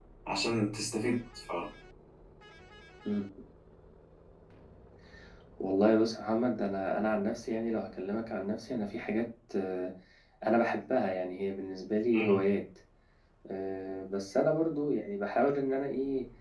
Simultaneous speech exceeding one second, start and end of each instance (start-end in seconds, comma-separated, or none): none